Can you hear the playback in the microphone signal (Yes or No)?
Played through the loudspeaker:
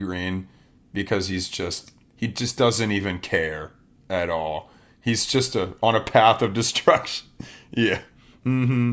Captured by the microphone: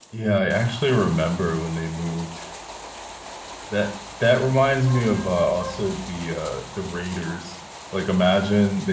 No